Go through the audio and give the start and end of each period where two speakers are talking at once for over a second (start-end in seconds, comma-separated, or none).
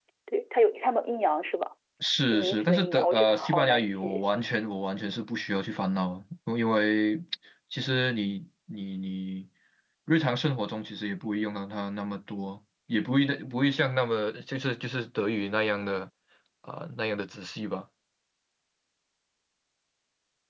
2.3-4.2